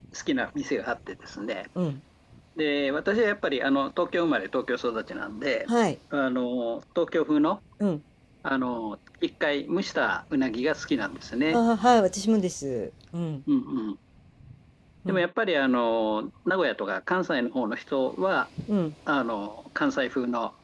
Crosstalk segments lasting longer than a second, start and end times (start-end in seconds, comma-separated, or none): none